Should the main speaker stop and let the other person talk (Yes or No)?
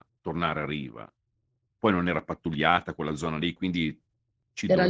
No